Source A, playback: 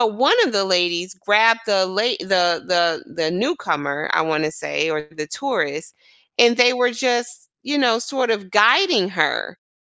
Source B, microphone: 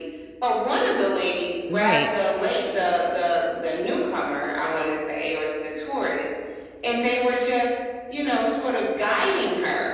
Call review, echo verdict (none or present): present